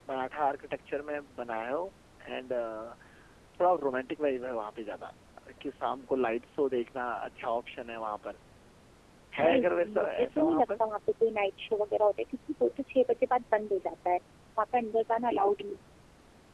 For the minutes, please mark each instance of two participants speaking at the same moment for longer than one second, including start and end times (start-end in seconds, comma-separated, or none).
9.4-10.7